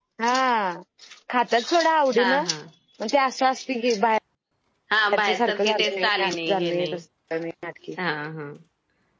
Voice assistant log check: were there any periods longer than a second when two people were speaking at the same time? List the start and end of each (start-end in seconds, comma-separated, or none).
5.1-7.0